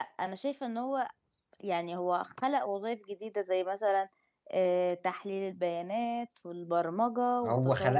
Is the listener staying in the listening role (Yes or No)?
No